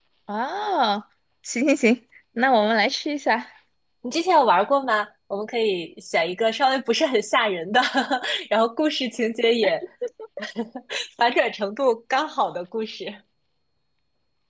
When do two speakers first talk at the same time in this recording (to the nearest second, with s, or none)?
none